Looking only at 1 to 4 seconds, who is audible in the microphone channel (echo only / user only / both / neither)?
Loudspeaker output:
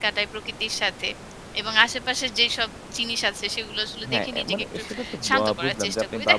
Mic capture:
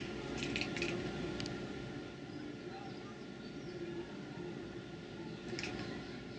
neither